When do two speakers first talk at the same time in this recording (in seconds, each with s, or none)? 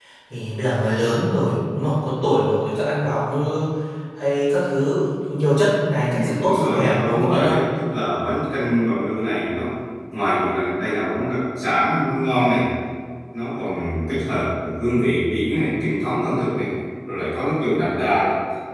6.1 s